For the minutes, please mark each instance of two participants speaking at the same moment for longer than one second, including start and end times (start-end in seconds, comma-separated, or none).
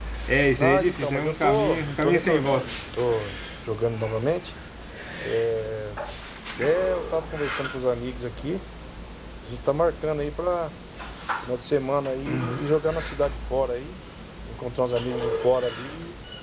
0.6-2.7